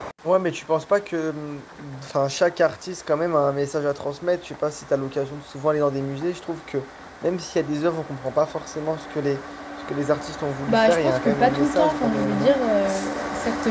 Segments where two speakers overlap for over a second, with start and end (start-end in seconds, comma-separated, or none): 10.7-12.5